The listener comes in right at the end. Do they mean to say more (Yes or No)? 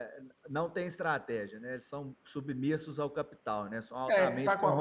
Yes